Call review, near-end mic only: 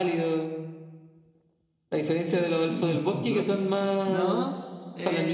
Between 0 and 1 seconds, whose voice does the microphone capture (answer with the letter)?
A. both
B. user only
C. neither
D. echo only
D